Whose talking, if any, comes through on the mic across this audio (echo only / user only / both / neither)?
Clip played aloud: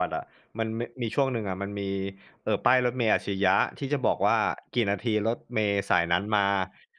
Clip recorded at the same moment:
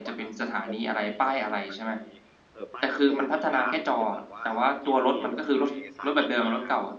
both